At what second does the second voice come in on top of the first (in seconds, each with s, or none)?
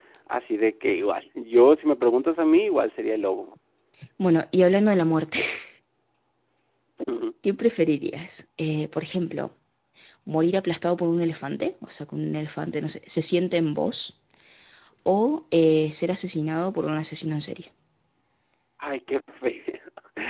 none